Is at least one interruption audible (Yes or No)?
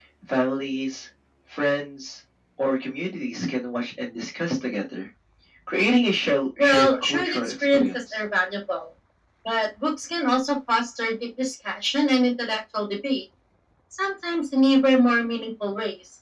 Yes